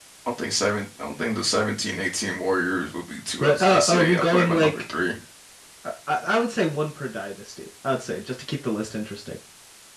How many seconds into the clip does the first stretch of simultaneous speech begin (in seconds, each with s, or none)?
3.4 s